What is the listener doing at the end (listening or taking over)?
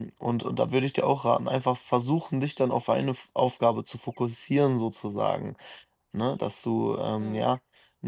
listening